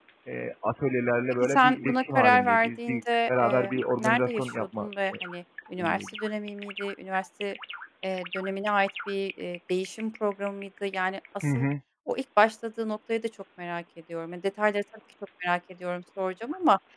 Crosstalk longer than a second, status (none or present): present